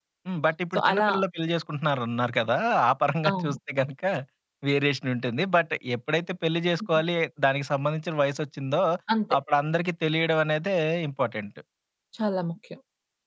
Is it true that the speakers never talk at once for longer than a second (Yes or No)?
Yes